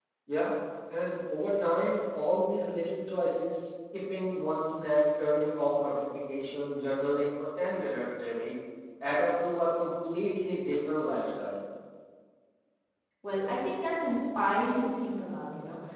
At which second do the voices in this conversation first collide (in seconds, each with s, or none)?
none